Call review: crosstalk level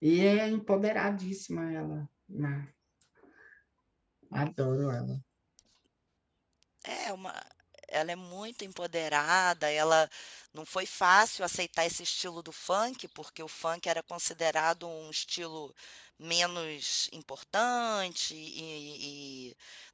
none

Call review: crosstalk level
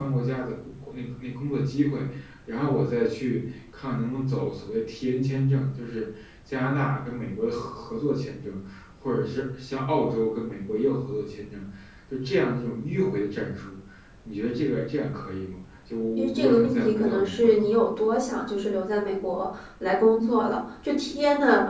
present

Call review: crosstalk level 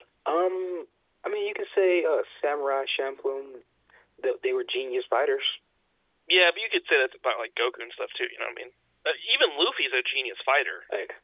none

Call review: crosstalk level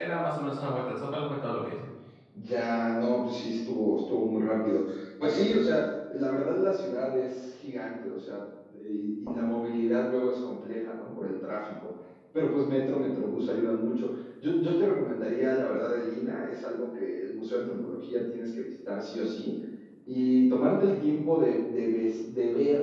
none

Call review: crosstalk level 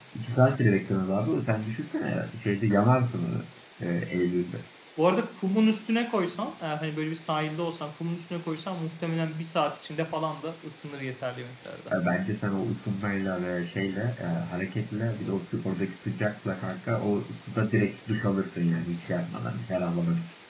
none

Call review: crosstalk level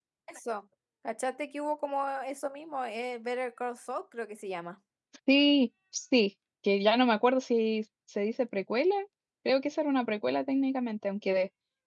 none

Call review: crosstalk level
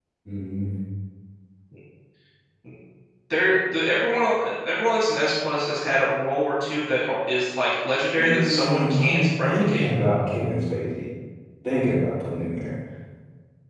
present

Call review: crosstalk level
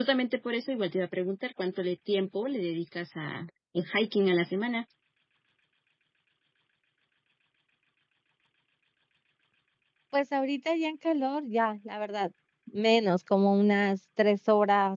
none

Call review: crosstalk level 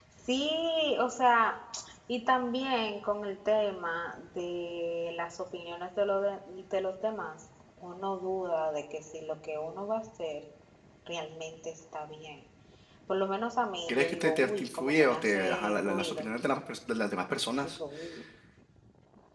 present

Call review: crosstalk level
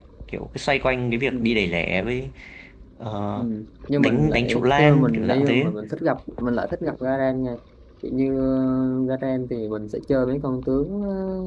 present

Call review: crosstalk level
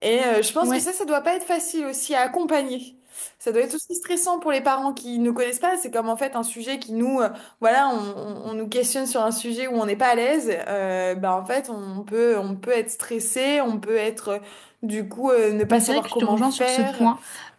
present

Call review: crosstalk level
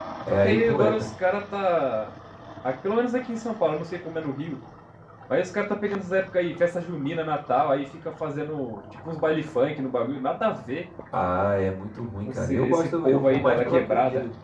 present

